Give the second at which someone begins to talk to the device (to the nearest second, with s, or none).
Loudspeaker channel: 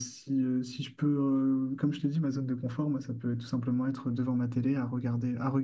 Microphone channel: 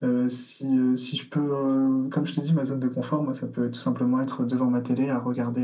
none